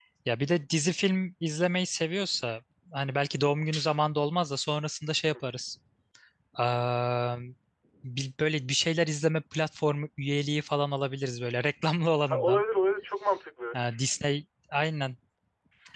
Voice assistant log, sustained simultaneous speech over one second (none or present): none